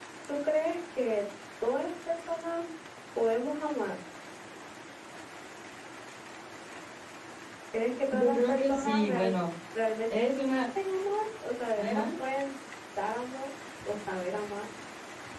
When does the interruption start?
8.1 s

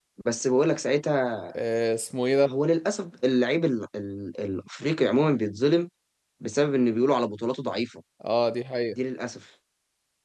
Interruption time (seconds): none

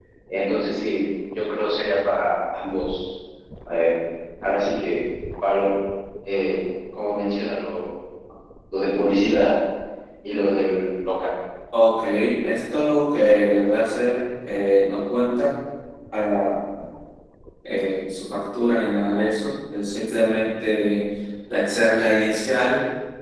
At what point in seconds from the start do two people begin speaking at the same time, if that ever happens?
none

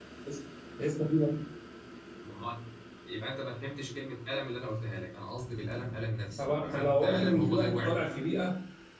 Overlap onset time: 6.4 s

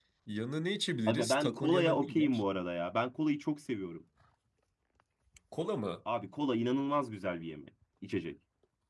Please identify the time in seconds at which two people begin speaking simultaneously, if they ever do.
1.1 s

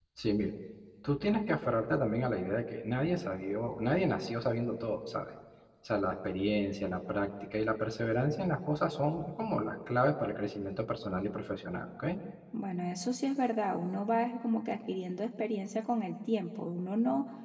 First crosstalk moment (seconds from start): none

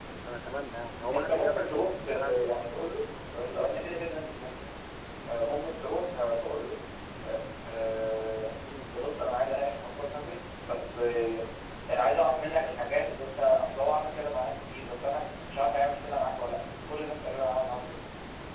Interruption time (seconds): 1.1 s

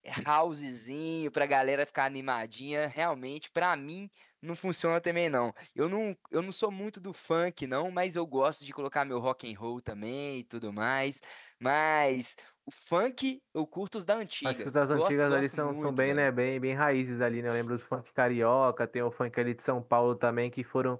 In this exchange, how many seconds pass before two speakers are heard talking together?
14.4 s

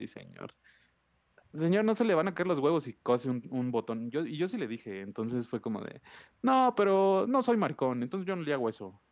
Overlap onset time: none

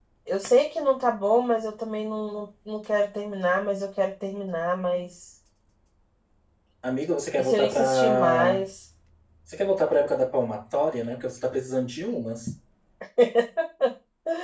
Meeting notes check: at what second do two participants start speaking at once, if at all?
7.4 s

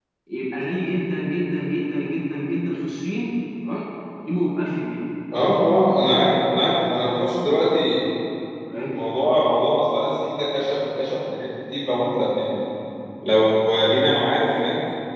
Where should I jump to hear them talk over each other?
none

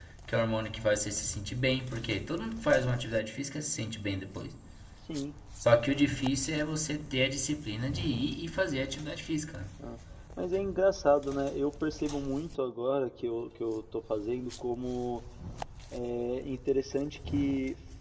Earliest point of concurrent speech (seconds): none

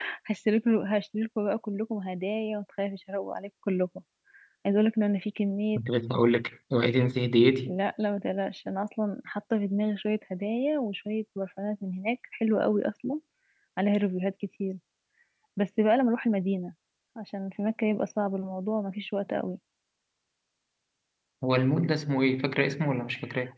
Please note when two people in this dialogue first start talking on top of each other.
none

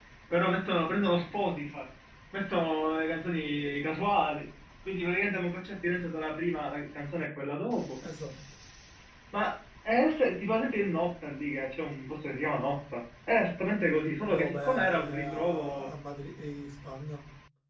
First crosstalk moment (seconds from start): 14.2 s

